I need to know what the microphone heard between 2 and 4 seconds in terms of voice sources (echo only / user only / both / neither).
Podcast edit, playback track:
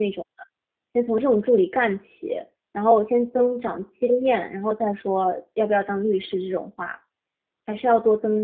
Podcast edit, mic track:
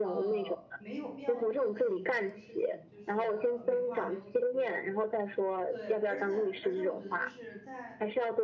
both